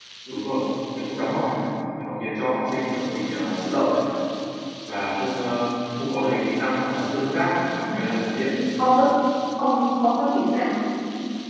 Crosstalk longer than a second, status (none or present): none